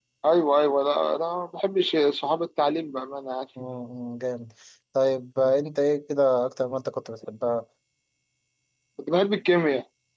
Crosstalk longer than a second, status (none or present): none